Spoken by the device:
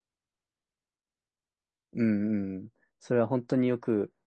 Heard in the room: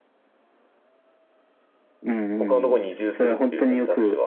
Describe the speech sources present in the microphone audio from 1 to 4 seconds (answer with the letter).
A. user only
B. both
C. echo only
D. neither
B